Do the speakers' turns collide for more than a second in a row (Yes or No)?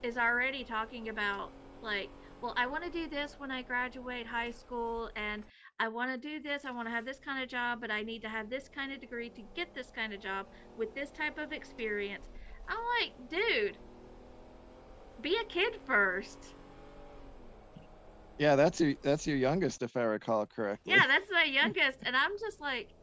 No